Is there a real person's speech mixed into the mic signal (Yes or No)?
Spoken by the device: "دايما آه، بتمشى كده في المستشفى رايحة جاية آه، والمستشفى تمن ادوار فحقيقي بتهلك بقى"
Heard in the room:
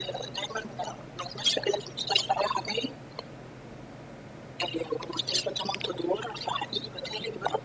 No